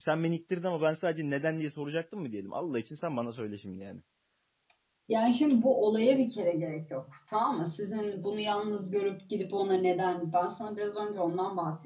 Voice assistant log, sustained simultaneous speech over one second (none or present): none